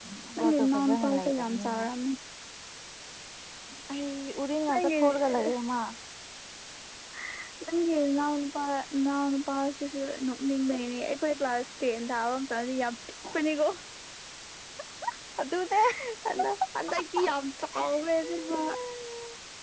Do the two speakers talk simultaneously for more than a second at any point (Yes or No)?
Yes